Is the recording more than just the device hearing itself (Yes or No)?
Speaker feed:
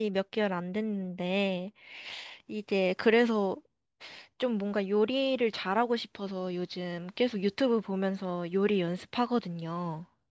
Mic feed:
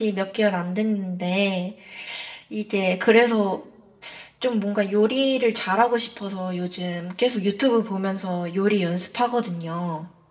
No